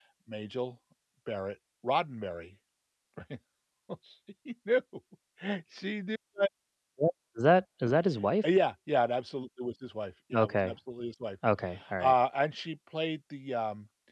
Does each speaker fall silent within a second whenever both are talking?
Yes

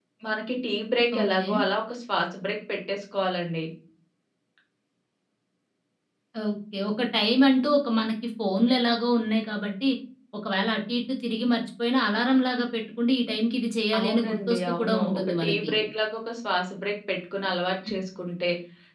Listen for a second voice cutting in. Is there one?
Yes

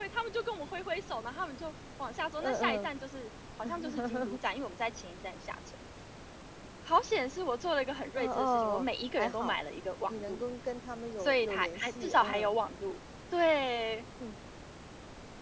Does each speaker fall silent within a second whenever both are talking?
No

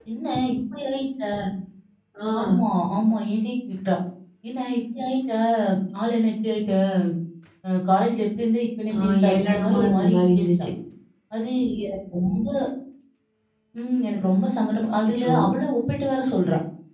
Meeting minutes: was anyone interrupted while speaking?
Yes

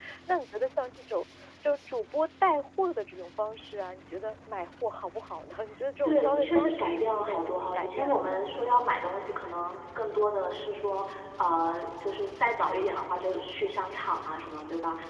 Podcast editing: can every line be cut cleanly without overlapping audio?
No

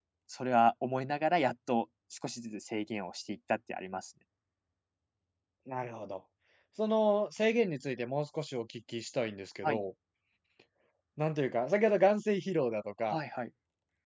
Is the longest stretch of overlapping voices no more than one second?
Yes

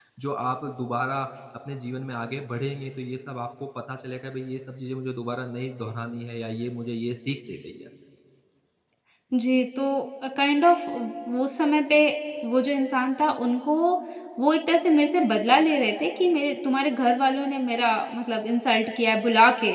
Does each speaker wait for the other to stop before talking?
Yes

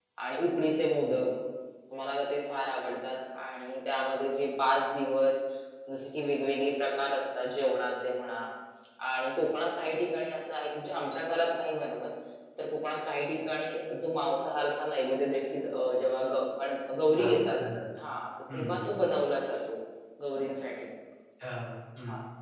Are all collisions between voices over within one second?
Yes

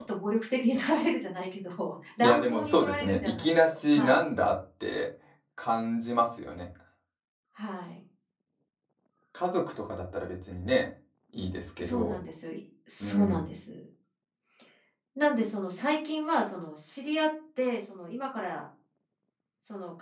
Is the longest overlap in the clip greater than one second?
Yes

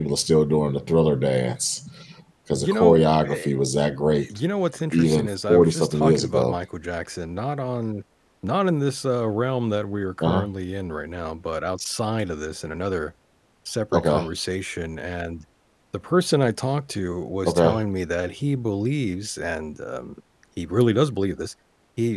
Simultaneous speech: Yes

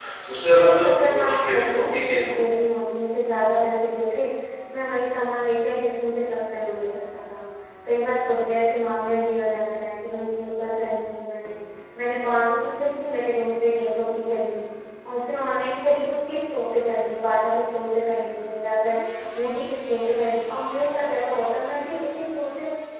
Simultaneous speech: Yes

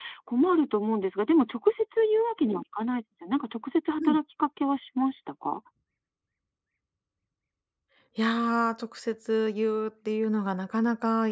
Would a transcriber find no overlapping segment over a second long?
Yes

